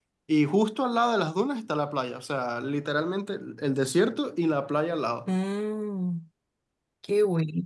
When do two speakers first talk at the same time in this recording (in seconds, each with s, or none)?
none